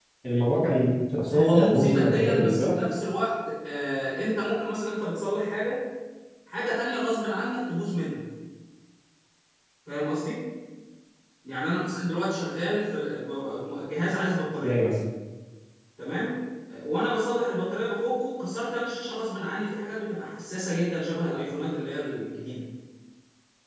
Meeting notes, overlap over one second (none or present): present